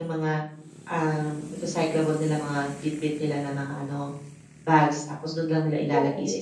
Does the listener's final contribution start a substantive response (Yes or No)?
No